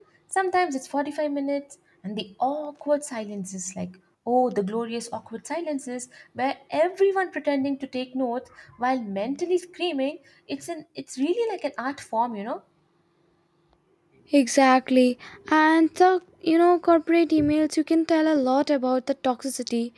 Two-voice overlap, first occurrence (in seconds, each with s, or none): none